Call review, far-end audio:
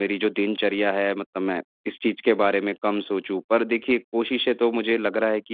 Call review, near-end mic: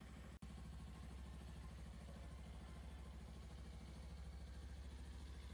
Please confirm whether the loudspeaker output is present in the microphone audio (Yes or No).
No